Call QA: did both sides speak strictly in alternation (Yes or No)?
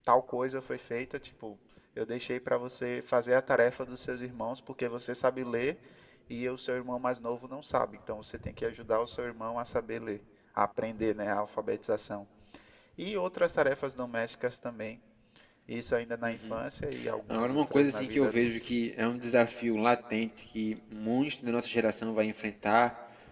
No